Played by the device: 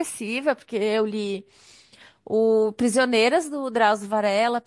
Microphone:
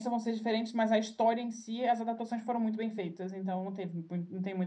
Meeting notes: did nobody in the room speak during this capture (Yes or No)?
No